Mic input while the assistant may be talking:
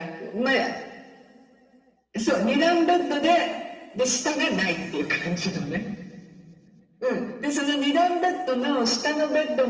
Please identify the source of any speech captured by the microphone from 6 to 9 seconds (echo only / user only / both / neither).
echo only